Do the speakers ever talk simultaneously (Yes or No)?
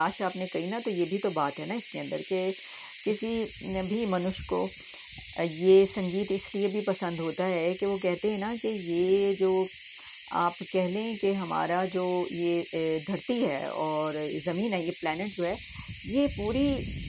No